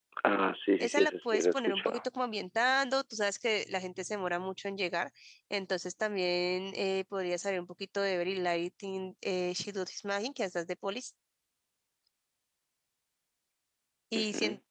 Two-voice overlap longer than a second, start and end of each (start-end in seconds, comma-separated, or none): 0.8-2.1